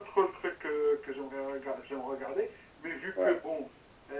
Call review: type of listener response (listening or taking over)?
listening